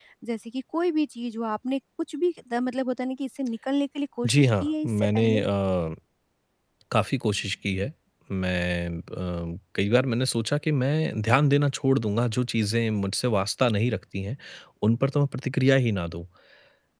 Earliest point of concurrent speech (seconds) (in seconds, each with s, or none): 4.2 s